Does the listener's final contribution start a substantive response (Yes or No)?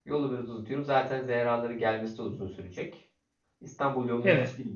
No